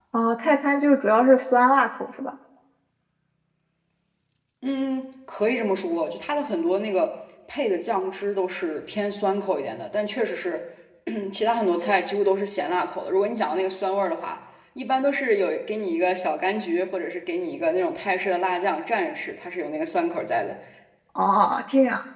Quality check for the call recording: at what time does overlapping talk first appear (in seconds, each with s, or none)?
none